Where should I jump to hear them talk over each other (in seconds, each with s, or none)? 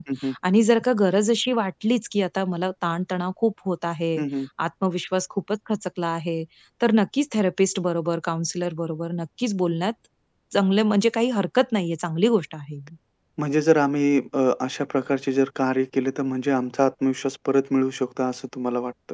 none